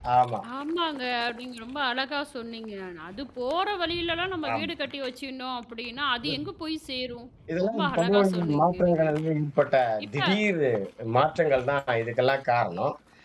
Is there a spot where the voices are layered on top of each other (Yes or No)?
Yes